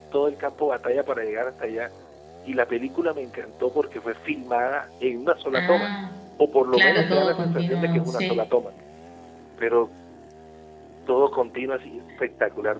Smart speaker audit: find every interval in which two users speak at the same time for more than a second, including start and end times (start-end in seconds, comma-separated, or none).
6.7-8.4